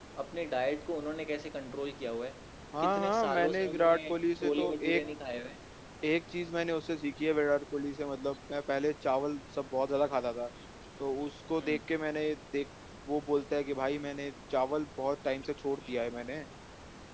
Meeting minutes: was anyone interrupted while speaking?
Yes, from 2.8 s

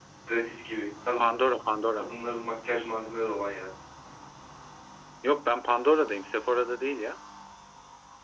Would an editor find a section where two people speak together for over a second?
No

